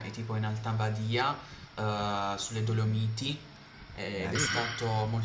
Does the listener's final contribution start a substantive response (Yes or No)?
No